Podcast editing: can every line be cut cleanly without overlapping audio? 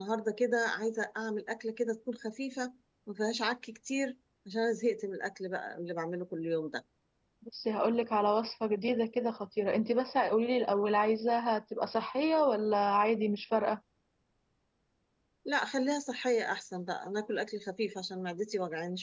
Yes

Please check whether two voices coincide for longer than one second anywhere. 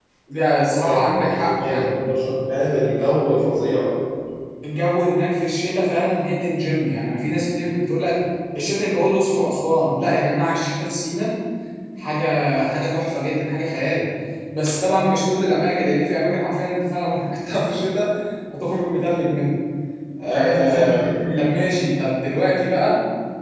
Yes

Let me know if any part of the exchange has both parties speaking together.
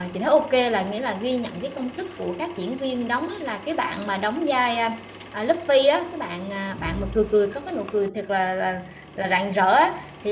No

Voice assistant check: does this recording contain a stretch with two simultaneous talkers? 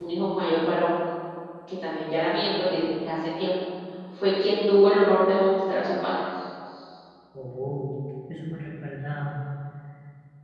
No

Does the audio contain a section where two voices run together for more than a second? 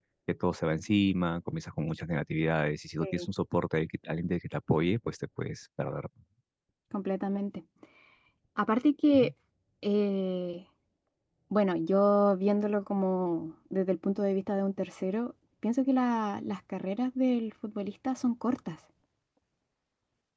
No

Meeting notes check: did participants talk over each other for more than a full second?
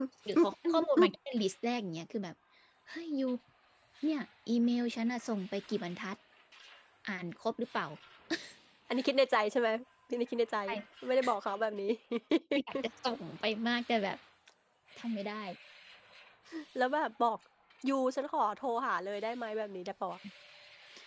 No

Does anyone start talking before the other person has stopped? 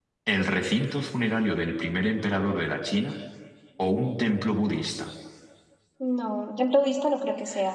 No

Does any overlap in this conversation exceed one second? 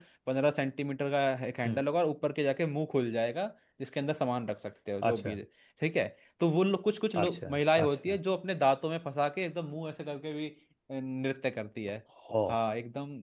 No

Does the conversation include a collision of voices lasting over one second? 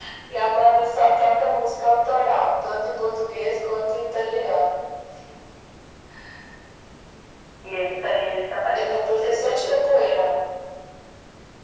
Yes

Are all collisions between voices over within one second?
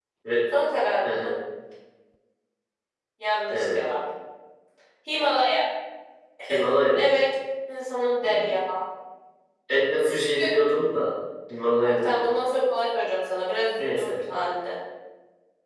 Yes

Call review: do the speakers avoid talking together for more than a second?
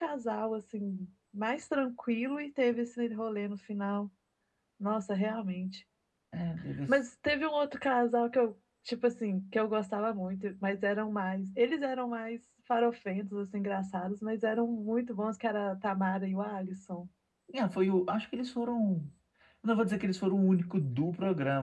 Yes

